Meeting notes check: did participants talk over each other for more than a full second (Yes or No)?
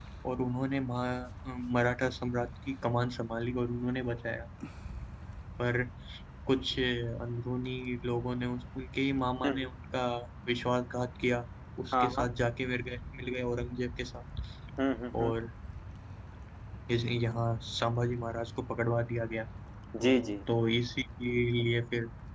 No